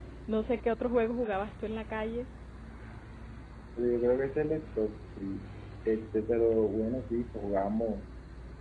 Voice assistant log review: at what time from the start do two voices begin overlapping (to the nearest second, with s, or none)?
none